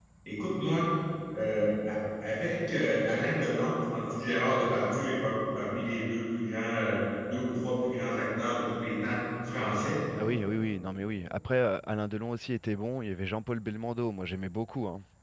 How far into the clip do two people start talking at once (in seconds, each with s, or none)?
none